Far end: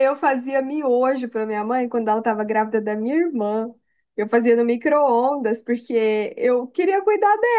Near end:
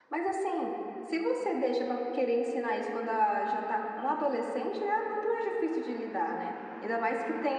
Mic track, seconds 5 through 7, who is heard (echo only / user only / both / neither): user only